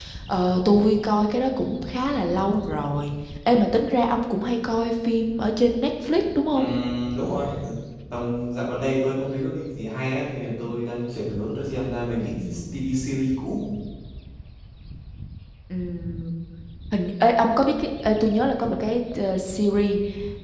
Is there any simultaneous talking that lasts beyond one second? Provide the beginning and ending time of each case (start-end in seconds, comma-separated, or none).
none